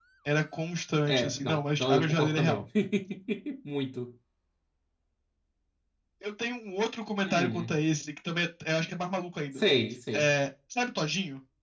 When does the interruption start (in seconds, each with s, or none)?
1.1 s